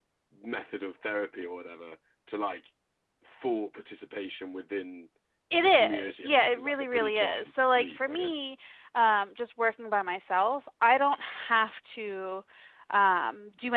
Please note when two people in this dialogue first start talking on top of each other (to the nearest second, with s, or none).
6 s